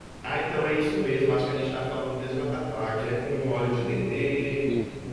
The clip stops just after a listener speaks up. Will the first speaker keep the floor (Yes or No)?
Yes